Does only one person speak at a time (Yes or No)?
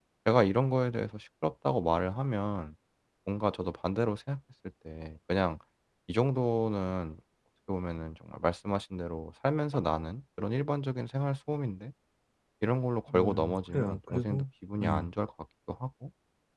No